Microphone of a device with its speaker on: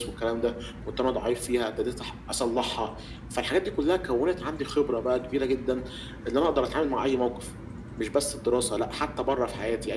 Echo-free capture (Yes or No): No